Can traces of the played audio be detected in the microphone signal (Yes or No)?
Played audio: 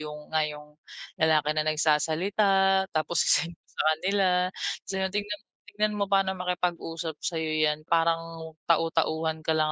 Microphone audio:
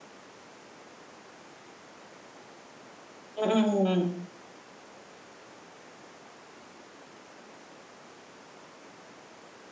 No